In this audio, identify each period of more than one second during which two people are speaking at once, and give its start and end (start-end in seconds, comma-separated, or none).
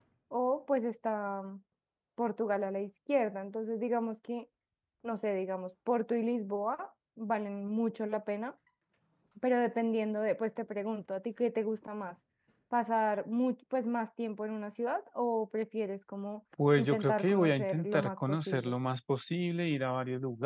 16.8-18.7